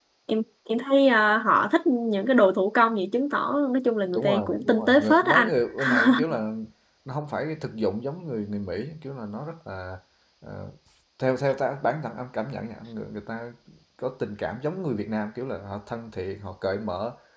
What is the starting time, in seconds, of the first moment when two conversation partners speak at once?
4.2 s

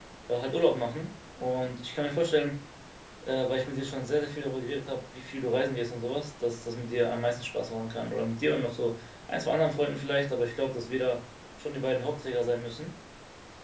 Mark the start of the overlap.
none

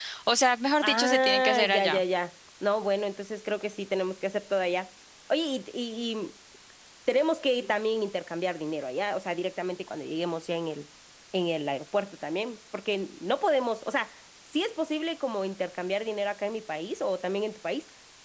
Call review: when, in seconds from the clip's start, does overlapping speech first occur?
0.8 s

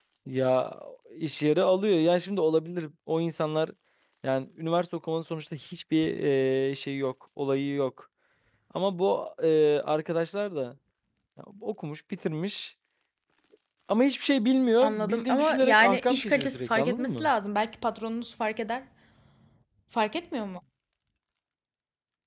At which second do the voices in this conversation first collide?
14.8 s

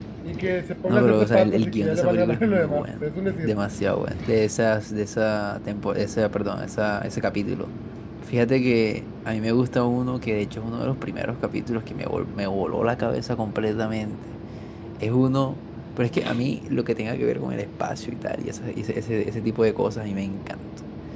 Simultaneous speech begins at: 0.8 s

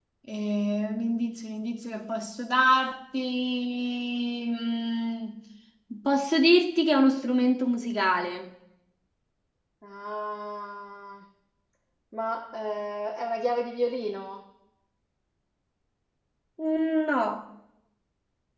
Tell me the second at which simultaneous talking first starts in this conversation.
none

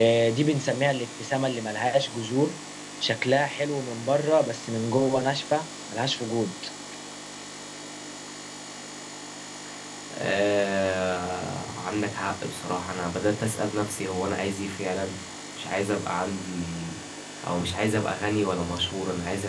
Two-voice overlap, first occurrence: none

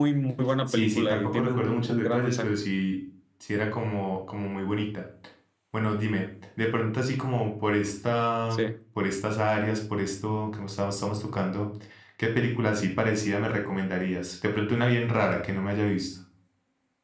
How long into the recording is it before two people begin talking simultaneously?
0.7 s

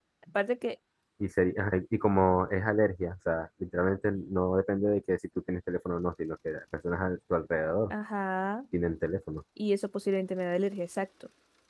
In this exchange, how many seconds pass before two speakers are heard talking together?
none

